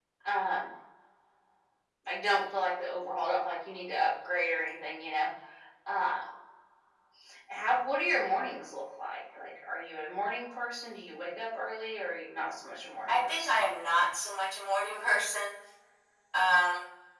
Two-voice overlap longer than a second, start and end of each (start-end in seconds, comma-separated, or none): none